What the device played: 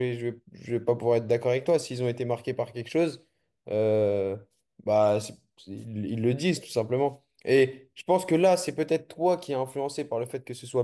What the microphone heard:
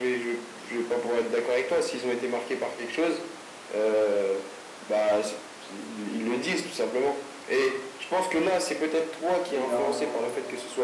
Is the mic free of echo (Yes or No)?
No